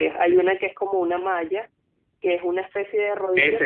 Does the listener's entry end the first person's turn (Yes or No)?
Yes